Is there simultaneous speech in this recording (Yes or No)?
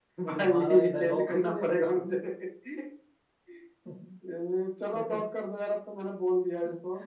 Yes